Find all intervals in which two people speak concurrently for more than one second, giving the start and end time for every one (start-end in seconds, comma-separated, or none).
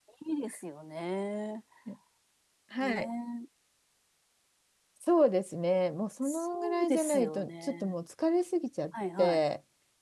6.2-7.9